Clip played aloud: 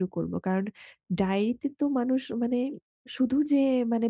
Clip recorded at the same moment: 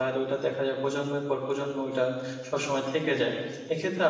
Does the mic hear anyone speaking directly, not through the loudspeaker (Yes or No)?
Yes